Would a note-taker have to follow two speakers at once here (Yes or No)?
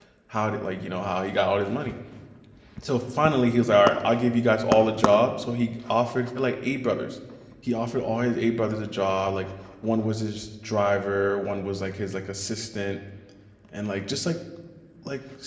No